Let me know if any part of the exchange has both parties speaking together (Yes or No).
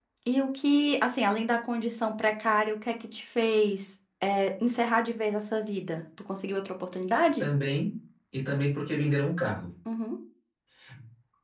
No